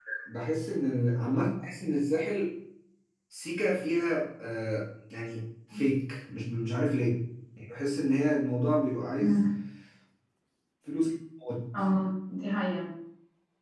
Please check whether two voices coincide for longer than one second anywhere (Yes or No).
No